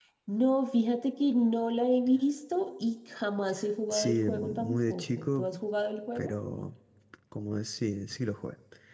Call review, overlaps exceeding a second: present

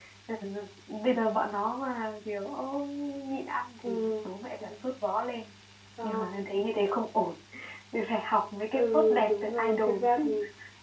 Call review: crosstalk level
present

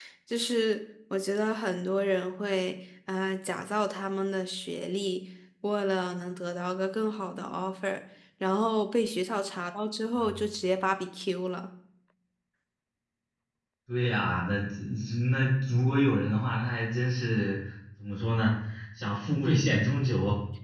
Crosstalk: none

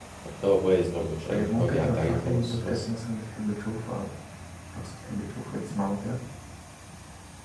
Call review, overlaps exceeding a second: present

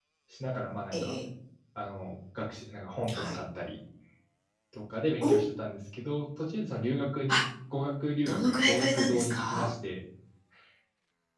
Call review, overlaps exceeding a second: present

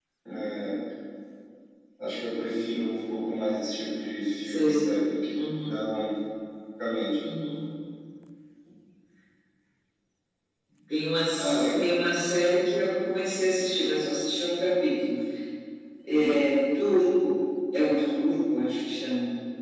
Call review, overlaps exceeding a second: none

